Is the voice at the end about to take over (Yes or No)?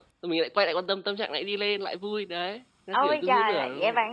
Yes